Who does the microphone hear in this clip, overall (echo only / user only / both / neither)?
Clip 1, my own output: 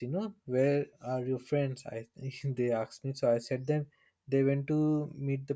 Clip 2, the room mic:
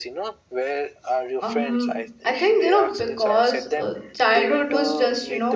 both